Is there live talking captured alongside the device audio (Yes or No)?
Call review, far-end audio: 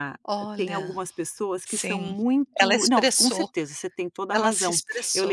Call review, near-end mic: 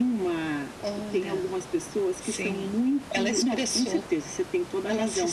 No